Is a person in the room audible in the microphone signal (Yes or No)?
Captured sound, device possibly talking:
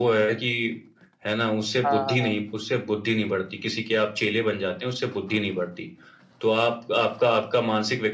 Yes